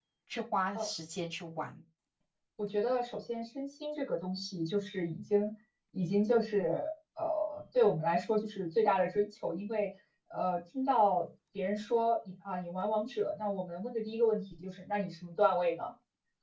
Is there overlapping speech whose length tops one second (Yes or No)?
No